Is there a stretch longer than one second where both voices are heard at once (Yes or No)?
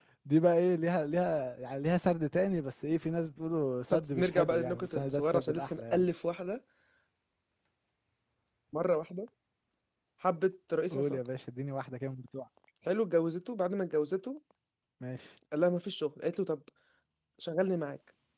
Yes